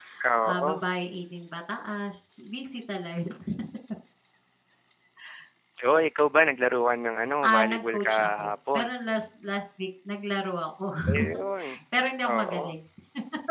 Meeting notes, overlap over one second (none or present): present